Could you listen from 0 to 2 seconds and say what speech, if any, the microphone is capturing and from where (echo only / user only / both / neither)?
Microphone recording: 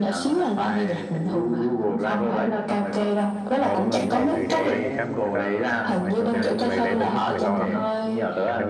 echo only